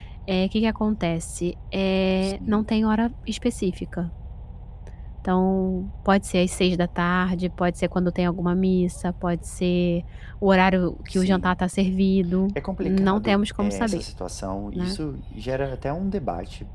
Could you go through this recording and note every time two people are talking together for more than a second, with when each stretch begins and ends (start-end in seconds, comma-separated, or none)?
12.8-14.0